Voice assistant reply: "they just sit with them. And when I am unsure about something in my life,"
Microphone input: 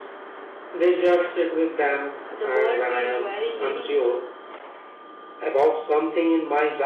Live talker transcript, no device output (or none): the world feels very meaningful.